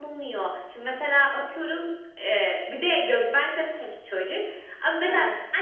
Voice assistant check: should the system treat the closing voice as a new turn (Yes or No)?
No